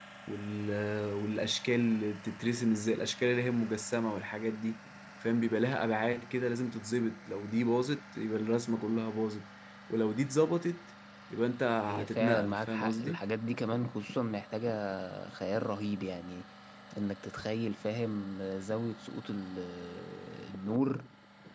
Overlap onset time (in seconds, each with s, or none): 11.9 s